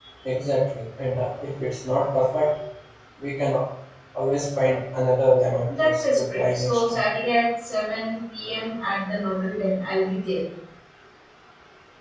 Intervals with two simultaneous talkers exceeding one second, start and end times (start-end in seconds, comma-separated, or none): 5.8-7.0